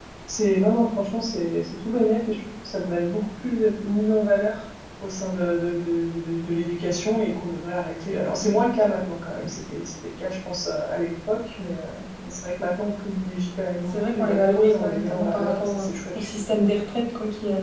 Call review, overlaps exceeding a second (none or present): present